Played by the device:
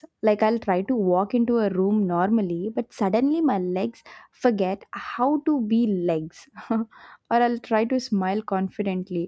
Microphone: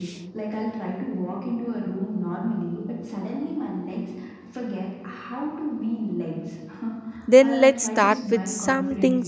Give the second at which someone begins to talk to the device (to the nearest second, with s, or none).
7 s